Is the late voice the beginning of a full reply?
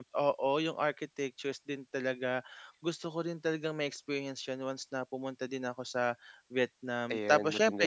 No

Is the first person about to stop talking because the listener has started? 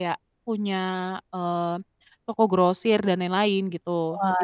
Yes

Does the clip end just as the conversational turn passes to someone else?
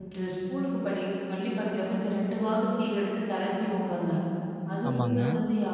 No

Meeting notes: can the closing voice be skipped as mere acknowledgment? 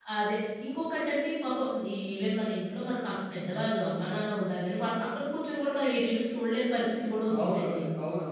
No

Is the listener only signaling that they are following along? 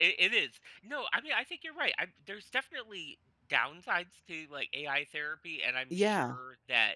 Yes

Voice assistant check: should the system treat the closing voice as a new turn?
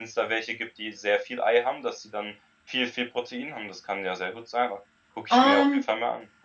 Yes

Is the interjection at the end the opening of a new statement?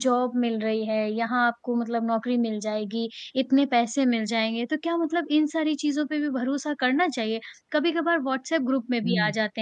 No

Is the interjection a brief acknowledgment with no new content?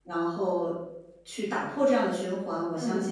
Yes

